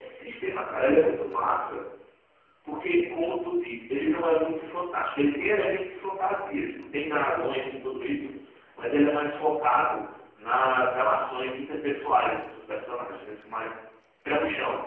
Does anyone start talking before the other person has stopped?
No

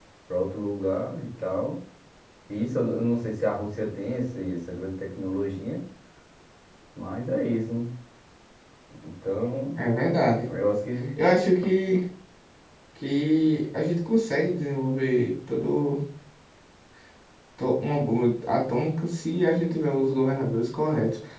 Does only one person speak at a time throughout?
Yes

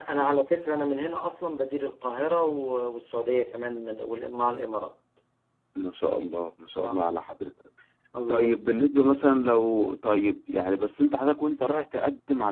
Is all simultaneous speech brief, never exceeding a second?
Yes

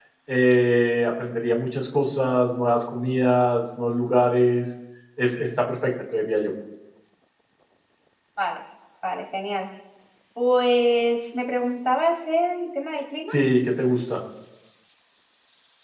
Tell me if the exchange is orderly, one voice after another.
Yes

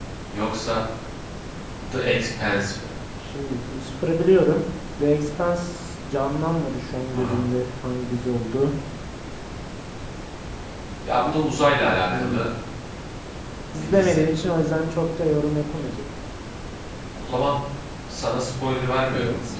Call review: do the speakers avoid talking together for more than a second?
Yes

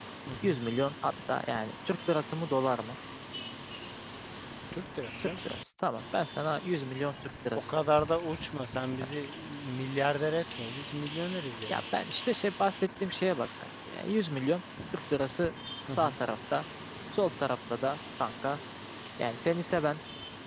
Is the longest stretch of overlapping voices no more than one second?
Yes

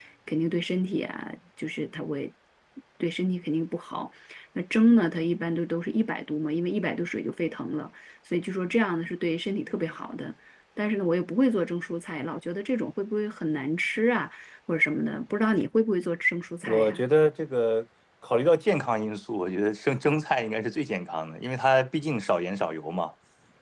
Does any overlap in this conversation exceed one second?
No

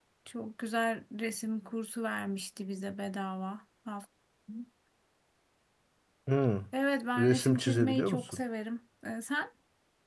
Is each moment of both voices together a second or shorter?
No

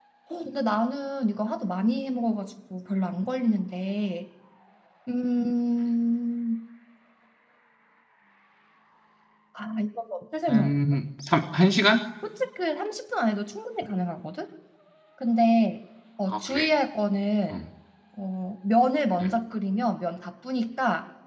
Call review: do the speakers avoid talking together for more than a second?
Yes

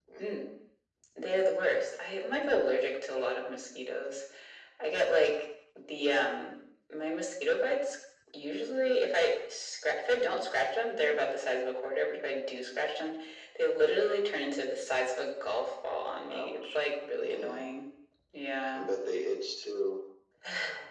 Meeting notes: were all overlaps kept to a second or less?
Yes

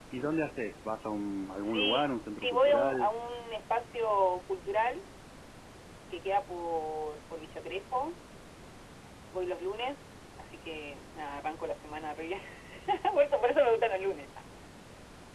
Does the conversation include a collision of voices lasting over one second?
Yes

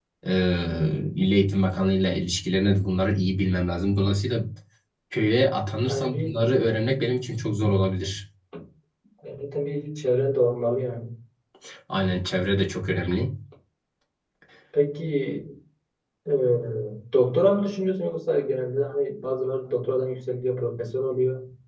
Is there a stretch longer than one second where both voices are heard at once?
No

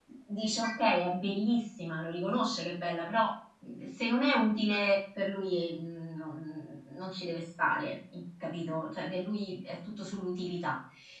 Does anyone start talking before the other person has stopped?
No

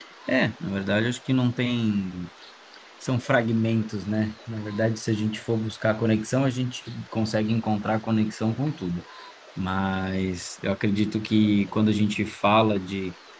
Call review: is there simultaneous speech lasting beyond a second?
No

